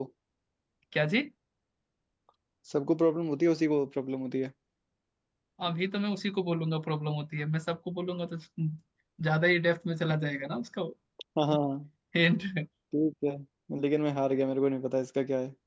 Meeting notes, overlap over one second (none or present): none